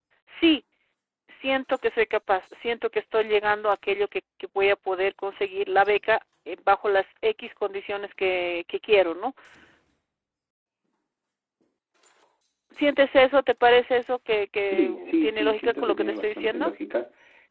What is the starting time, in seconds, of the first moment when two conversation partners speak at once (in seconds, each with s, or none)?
14.7 s